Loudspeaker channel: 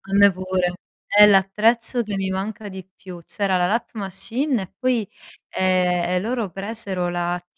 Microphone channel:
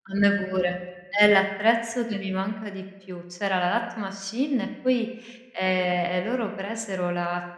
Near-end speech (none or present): none